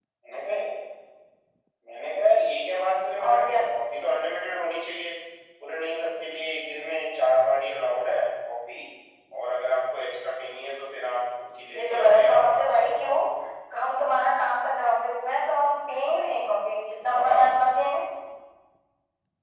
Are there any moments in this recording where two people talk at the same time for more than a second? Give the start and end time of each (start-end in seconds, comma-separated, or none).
11.8-13.2